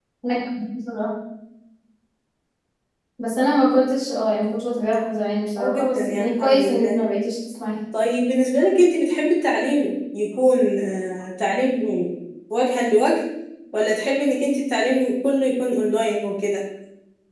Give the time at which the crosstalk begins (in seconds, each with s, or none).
5.6 s